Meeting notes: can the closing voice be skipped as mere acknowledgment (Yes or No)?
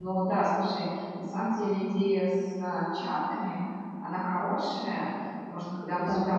Yes